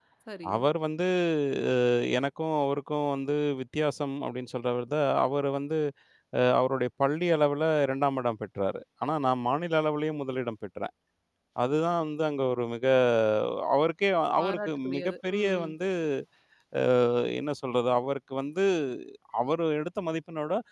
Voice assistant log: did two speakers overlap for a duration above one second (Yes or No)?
Yes